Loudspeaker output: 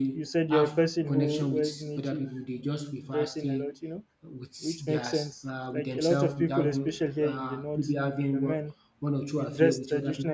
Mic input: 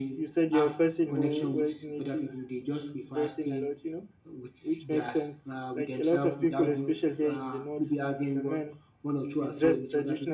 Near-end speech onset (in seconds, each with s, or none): none